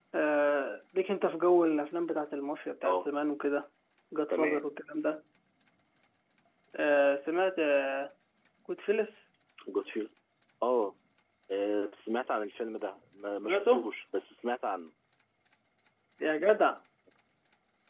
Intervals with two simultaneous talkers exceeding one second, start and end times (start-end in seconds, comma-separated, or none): none